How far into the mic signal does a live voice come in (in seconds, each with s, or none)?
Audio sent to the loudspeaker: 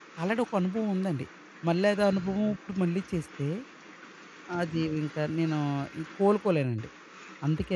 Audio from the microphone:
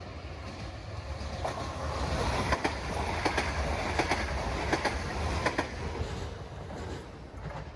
none